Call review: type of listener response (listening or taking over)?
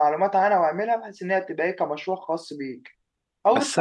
taking over